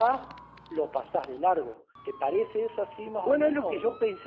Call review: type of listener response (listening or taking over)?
taking over